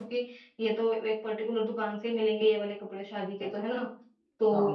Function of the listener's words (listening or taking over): listening